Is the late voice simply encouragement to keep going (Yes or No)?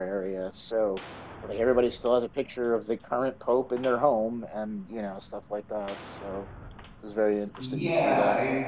No